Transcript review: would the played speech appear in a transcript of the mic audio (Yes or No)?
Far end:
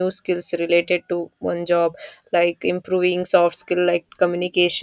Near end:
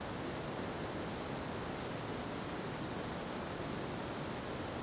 No